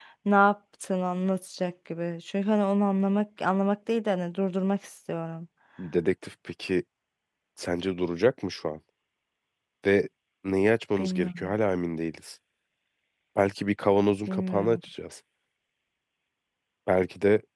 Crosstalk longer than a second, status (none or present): none